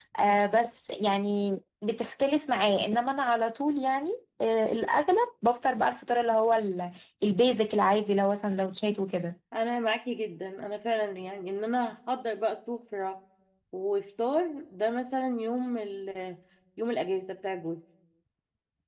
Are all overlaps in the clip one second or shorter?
Yes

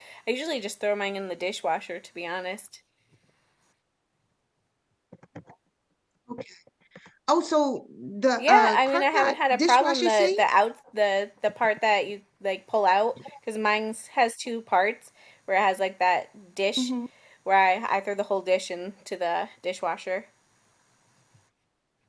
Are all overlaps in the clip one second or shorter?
No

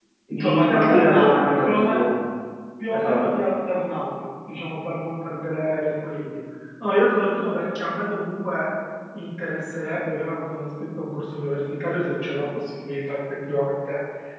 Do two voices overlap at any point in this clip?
Yes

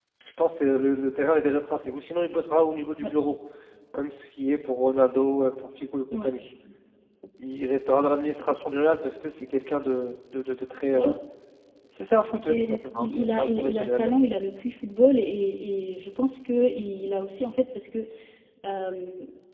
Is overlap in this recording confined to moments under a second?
No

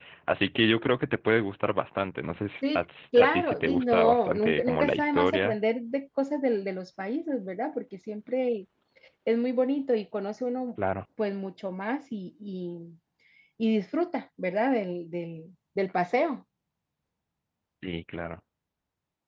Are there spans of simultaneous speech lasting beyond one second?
Yes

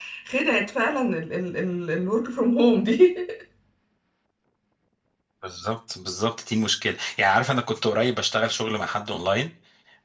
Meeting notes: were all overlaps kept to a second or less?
Yes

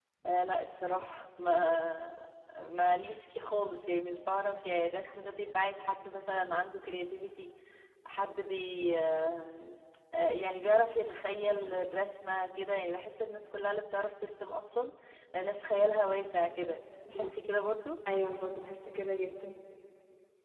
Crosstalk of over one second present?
No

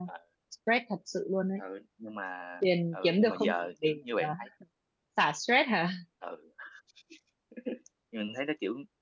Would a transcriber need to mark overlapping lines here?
Yes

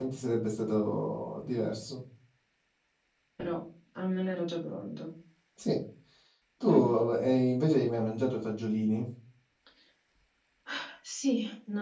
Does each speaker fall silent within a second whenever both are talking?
Yes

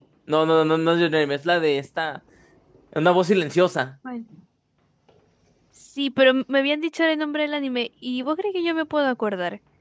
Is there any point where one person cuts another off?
No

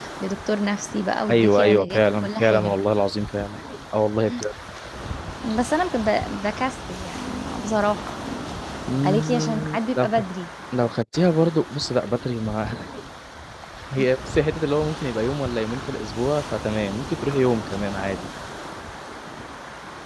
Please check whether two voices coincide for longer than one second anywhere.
Yes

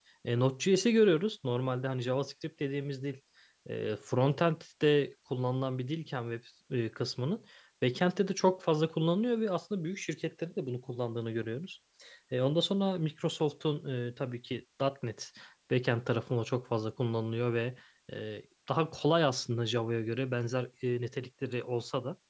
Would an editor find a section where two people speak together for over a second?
No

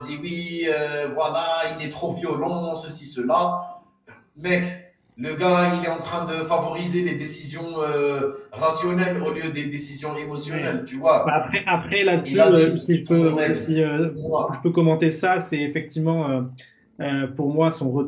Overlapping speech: Yes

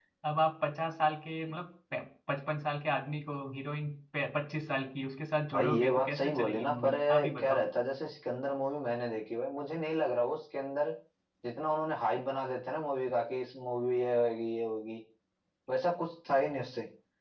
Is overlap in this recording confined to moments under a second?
No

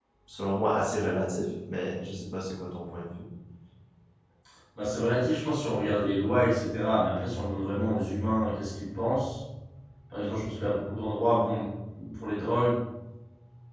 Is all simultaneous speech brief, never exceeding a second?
Yes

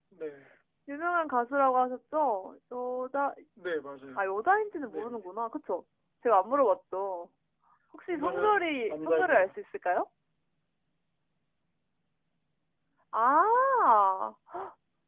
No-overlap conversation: No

